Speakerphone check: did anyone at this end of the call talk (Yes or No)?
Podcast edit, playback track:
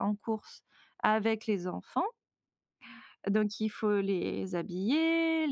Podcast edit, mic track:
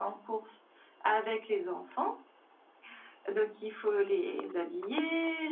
No